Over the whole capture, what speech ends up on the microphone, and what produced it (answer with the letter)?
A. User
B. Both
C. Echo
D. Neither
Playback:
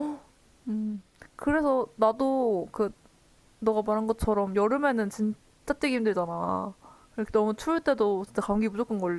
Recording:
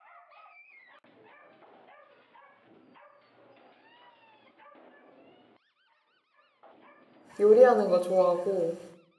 A